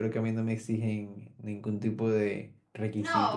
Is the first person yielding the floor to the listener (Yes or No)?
Yes